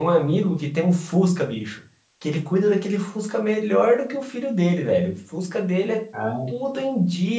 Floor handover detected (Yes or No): No